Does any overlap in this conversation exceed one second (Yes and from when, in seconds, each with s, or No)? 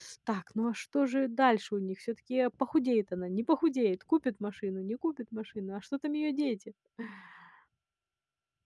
No